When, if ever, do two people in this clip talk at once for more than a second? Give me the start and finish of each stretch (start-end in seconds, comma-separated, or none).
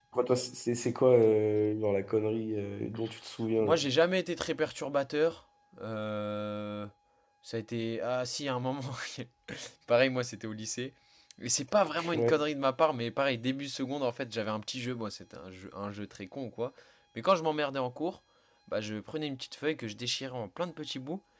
none